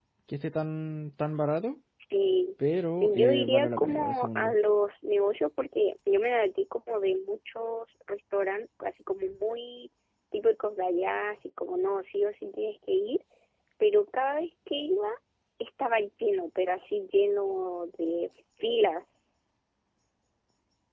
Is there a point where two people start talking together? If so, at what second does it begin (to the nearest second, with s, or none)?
3 s